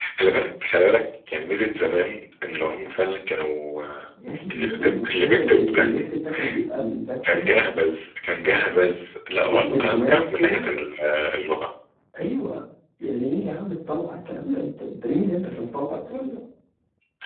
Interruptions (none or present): present